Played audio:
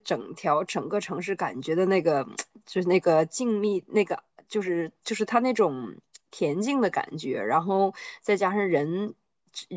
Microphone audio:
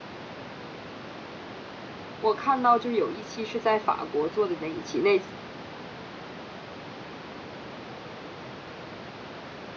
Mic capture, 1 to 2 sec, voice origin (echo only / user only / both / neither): neither